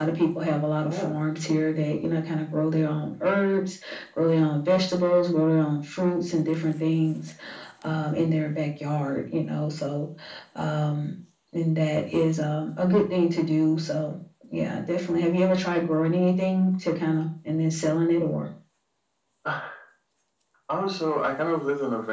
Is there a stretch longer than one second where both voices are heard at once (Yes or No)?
No